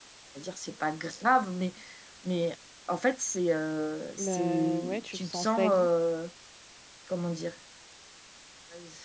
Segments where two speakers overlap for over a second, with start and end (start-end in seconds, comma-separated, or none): 4.2-5.9